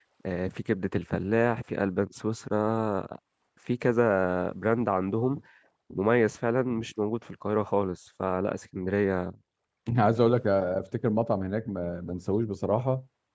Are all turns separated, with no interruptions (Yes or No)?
Yes